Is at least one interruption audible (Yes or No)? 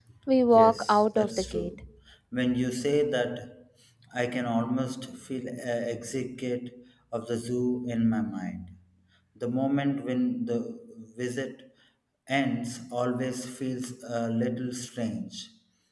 Yes